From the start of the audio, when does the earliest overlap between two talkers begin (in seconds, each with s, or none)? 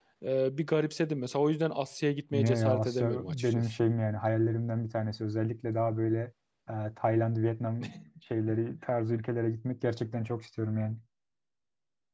2.3 s